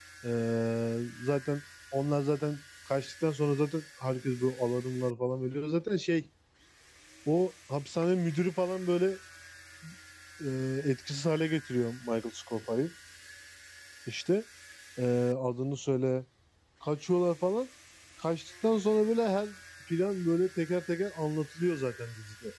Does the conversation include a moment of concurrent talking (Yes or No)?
No